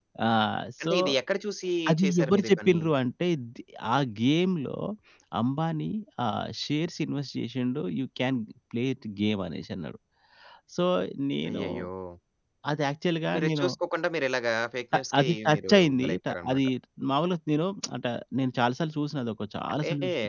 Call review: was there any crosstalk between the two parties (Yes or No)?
Yes